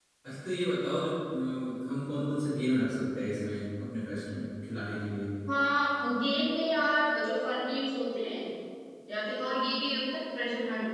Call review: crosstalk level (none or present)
none